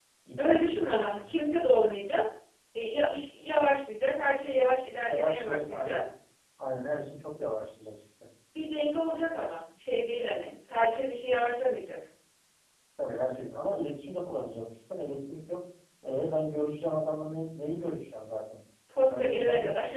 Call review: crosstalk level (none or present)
present